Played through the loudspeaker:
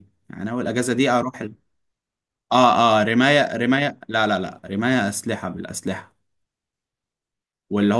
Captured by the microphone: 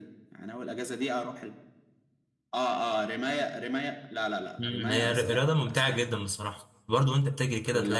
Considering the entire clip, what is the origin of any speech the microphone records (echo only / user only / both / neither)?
both